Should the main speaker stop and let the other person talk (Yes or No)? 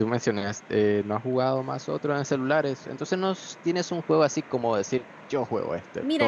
Yes